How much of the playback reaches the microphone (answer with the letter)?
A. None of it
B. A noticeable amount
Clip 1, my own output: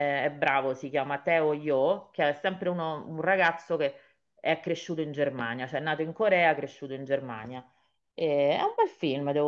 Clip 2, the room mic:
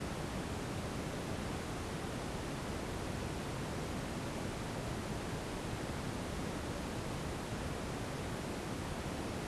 A